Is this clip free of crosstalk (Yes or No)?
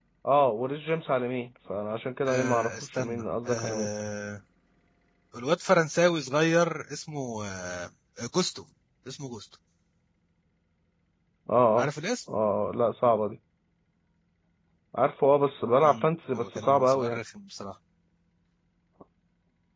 No